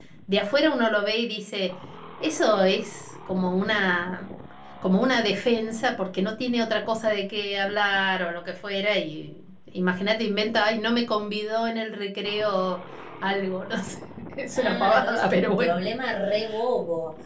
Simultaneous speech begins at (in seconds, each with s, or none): 14.6 s